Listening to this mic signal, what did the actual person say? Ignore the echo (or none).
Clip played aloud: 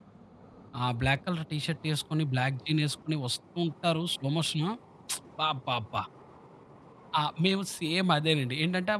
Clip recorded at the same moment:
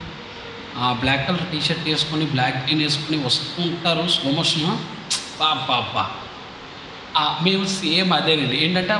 none